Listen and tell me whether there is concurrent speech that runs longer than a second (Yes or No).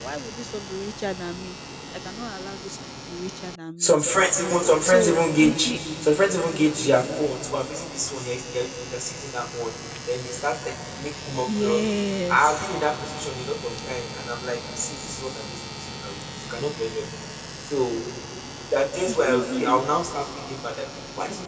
Yes